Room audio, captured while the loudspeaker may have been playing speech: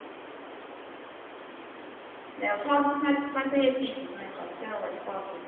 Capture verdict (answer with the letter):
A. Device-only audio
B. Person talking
B